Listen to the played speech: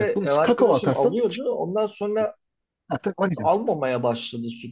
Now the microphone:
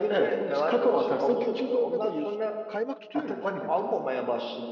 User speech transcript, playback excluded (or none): bir gün buzdolabına koyuyorsun. Kaymak tutuyor ya üstü.